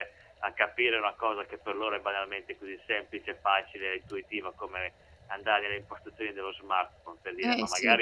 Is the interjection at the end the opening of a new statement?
No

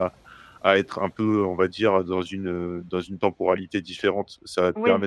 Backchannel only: Yes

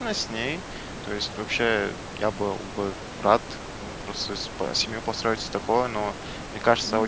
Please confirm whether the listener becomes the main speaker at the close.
No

